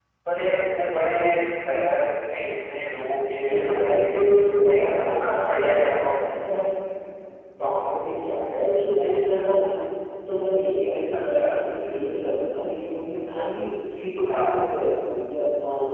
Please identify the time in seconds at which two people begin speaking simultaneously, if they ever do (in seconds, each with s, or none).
3.5 s